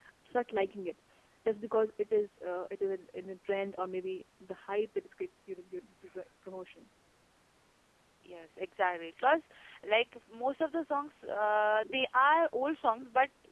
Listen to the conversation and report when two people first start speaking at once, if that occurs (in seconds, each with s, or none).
none